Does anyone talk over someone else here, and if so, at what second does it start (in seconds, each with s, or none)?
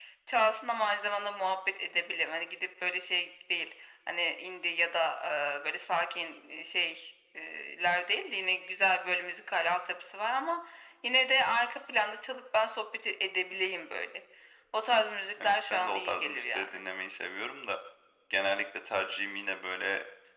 15.4 s